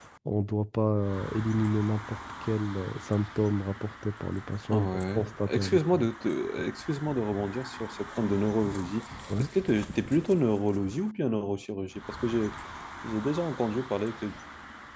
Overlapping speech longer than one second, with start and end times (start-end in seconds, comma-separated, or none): 4.7-6.1